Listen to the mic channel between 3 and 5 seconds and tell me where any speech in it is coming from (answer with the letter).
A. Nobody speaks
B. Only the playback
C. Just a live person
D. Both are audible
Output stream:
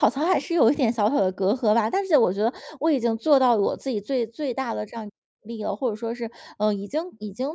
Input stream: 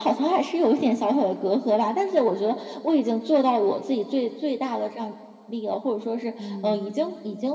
B